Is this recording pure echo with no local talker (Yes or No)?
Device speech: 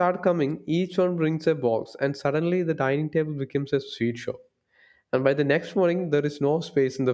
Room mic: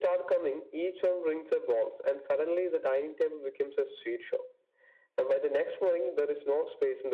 Yes